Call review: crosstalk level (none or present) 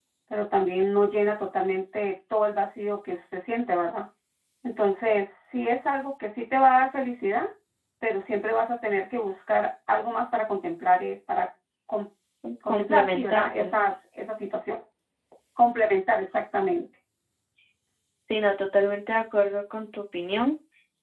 present